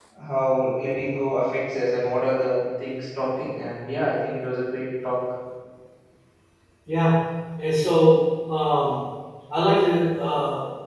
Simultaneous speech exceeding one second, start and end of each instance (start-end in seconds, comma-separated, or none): none